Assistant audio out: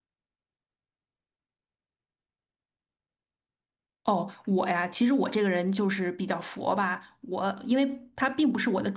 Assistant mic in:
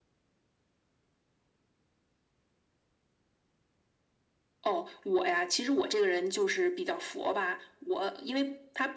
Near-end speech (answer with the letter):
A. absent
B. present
A